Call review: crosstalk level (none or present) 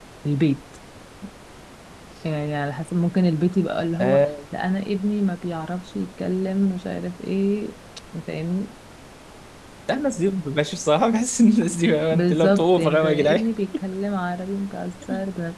present